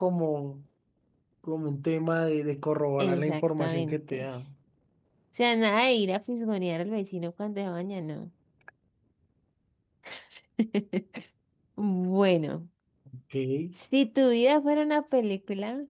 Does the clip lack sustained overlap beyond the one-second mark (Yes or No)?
No